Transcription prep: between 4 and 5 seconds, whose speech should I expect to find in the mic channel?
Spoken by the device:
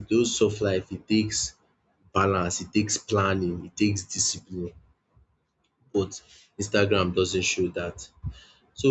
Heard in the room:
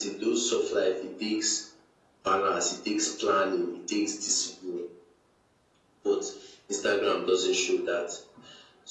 echo only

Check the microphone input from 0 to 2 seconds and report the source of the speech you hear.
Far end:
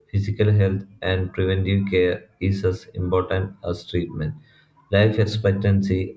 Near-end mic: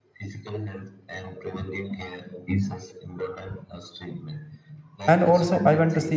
echo only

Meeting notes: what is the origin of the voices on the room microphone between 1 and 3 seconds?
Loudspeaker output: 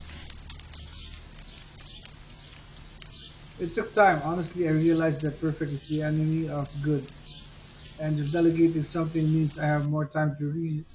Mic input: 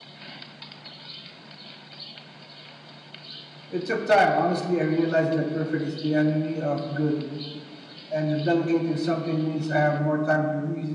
neither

